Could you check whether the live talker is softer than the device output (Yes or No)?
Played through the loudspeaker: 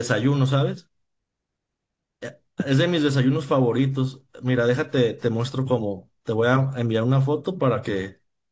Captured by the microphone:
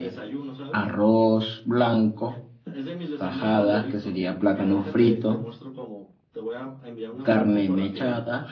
No